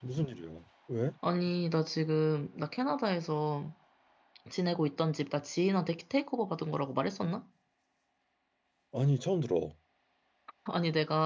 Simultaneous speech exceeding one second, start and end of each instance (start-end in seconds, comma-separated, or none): none